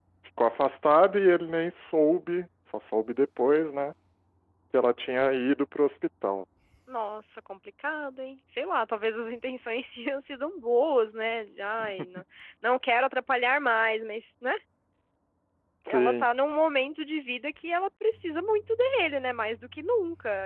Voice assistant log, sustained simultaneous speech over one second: none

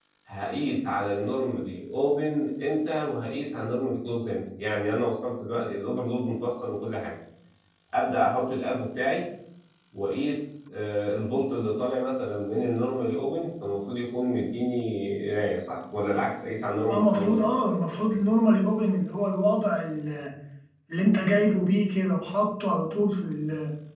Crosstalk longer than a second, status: none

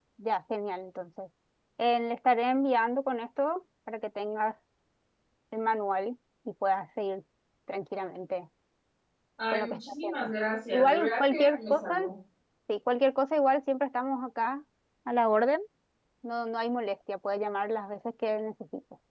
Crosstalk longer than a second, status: present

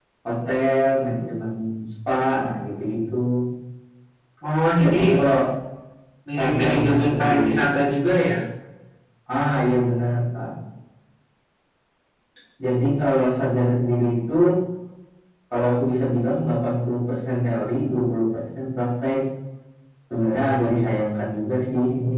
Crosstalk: present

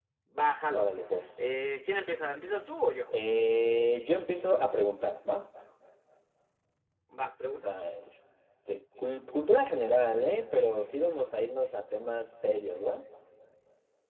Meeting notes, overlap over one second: none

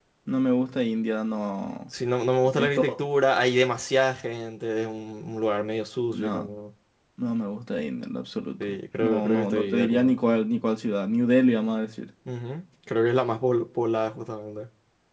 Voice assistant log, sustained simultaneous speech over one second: present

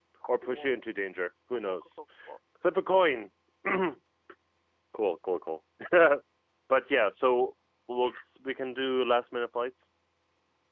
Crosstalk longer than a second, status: none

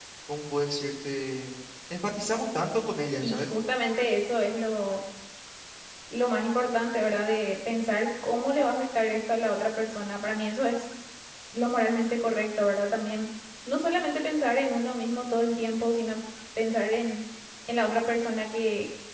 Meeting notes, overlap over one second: none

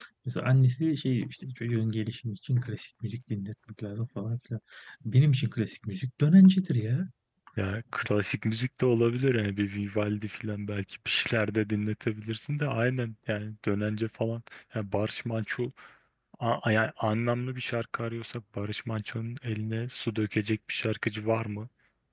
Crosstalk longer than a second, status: none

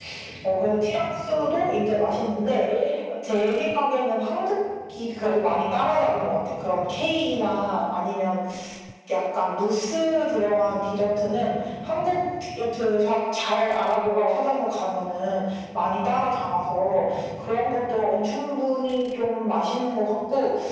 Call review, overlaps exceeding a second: none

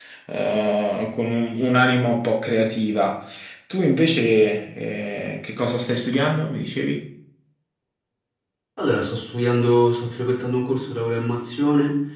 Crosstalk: none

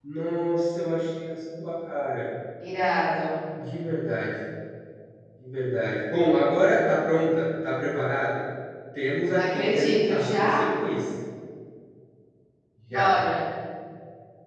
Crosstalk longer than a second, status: present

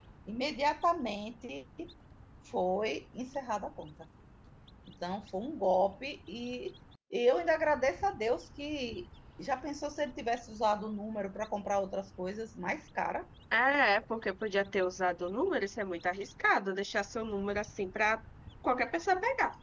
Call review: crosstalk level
none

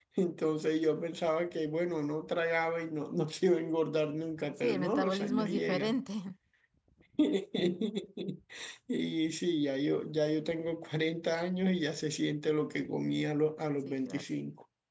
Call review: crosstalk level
present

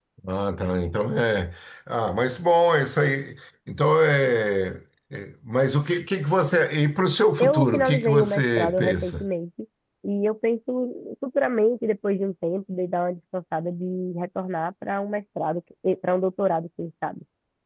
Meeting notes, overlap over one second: present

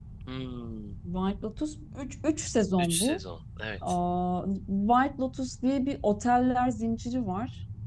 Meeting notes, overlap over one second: none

